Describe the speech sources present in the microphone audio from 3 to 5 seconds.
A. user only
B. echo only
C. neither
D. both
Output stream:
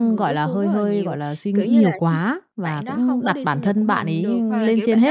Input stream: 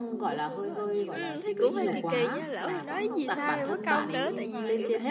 D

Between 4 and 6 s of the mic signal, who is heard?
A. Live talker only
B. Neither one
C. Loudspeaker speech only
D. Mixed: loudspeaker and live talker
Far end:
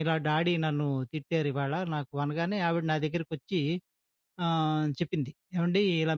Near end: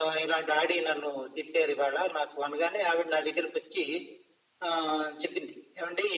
C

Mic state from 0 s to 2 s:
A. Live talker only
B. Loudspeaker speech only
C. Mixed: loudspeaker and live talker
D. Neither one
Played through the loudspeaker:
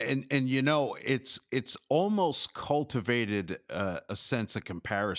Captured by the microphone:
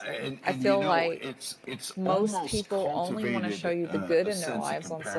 C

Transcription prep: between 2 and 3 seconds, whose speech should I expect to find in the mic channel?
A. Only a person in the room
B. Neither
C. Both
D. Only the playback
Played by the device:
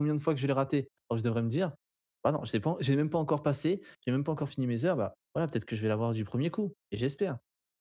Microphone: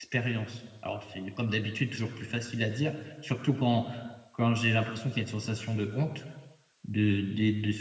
A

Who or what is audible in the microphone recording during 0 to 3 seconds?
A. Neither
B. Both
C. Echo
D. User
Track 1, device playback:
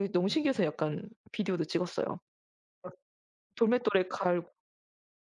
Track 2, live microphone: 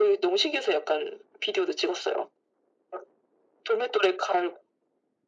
C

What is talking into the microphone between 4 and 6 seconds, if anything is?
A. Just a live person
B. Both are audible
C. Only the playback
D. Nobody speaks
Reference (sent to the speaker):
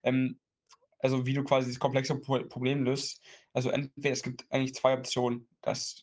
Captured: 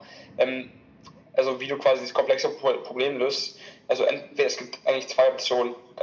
C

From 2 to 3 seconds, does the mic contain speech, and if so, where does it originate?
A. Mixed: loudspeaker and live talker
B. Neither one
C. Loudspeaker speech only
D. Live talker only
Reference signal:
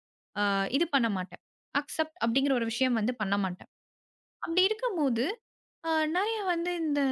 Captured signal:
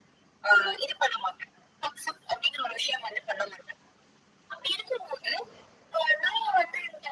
C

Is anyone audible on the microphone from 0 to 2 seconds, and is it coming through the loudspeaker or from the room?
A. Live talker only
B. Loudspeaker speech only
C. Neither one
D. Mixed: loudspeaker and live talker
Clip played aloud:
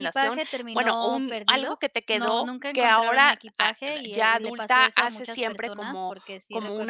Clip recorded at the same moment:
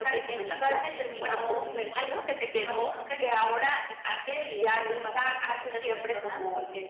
B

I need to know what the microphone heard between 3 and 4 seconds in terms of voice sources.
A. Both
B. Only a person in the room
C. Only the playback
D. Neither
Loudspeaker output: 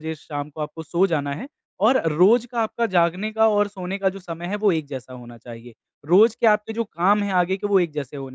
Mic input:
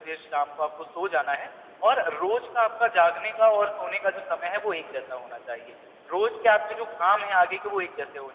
C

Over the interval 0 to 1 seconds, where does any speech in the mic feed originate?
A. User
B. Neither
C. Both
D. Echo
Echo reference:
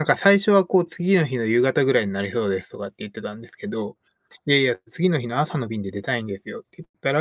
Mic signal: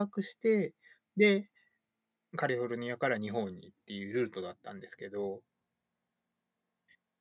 A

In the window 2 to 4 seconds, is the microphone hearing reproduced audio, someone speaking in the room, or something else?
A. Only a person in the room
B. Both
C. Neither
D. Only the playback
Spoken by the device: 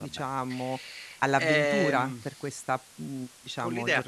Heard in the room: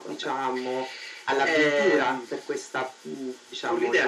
D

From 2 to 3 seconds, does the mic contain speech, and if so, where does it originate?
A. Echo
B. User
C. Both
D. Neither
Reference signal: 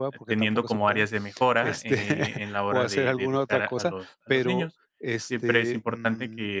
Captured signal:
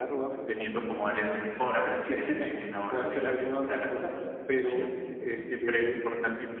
A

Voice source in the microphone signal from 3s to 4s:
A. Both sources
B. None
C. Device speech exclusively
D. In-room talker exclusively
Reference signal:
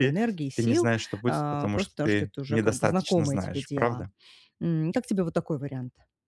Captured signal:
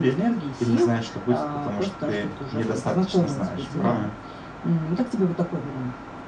A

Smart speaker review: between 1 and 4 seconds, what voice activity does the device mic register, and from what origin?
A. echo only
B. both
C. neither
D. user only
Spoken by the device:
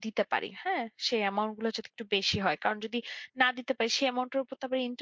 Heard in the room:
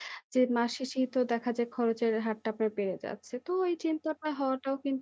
D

